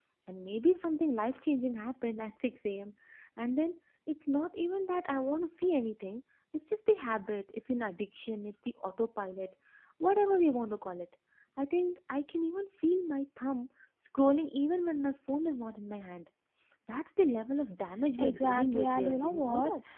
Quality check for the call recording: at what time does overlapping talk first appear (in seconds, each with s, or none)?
18.2 s